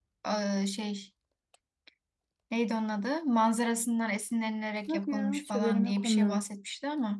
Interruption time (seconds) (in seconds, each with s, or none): 4.9 s